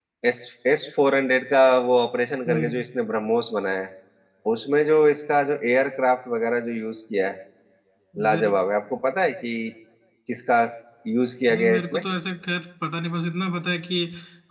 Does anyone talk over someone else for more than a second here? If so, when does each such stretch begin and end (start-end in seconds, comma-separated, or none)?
none